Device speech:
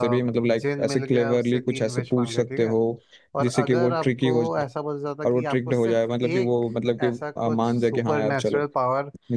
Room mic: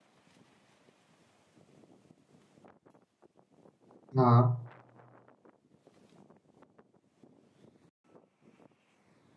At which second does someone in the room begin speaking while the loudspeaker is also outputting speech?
4.2 s

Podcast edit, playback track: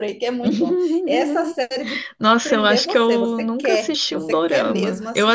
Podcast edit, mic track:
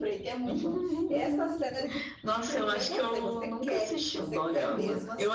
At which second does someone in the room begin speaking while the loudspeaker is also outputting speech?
none

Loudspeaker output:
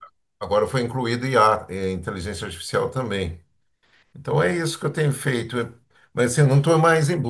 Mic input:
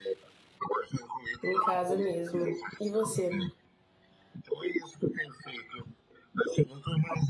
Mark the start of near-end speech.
1.4 s

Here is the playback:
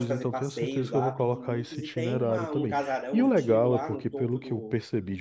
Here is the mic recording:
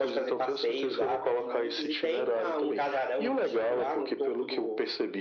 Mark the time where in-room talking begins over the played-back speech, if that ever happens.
none

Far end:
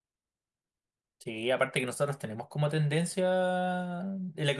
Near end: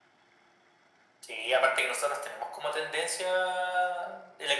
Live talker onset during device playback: none

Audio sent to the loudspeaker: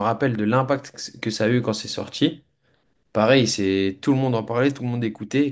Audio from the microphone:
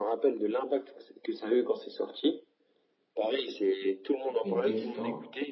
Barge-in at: 4.4 s

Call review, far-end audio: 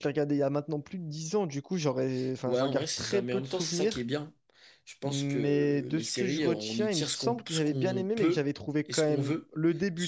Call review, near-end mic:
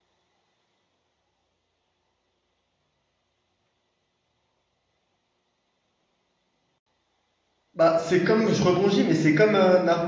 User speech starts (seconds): 7.7 s

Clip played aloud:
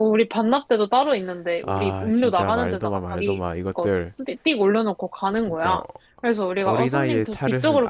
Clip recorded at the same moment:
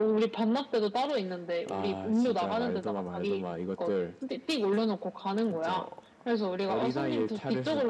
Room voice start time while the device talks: none

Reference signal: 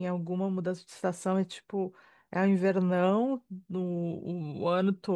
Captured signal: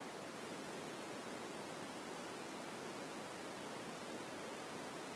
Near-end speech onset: none

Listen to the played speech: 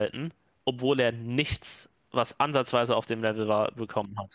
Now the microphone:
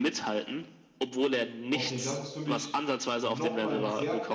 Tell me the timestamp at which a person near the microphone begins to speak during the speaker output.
1.7 s

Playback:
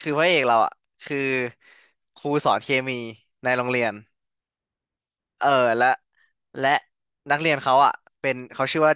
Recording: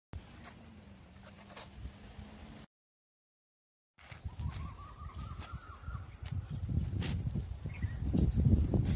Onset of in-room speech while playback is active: none

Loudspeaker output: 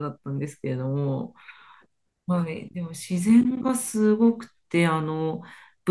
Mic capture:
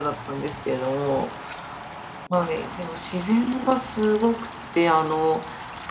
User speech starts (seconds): none

